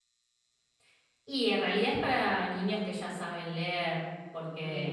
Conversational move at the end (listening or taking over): listening